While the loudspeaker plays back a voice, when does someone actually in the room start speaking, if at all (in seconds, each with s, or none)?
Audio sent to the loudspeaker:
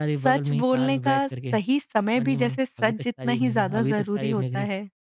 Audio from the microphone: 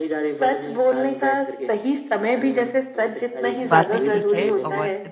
3.7 s